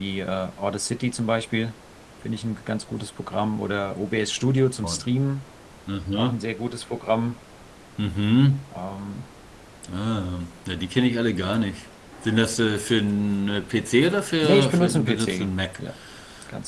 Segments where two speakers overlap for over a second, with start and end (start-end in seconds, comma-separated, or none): 14.4-15.8